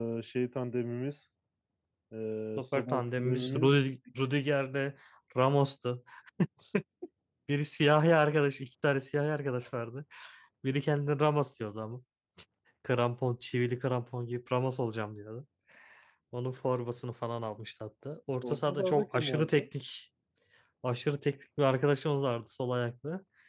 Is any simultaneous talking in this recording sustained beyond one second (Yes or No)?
Yes